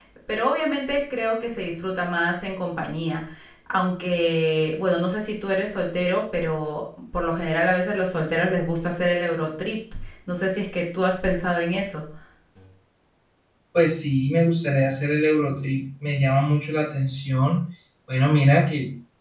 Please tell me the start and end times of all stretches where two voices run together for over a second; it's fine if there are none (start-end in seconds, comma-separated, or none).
none